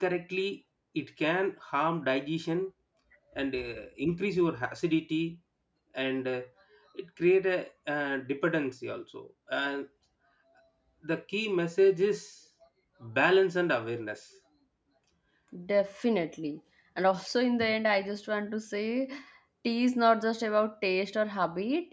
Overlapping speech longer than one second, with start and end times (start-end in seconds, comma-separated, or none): none